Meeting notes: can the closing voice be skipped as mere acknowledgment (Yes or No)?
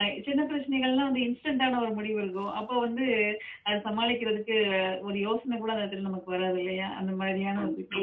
Yes